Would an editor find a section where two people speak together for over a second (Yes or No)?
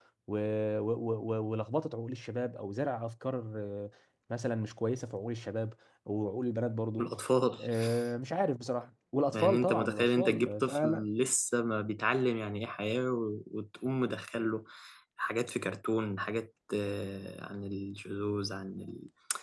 Yes